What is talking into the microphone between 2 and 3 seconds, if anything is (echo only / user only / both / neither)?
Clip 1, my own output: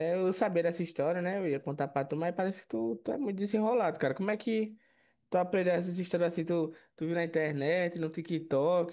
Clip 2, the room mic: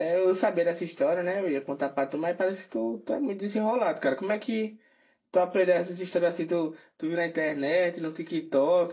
echo only